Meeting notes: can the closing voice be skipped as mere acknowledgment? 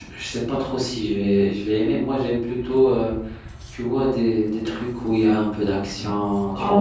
No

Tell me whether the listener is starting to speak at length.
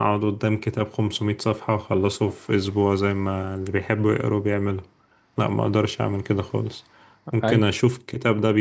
No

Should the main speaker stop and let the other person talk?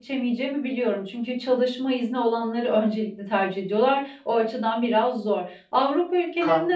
No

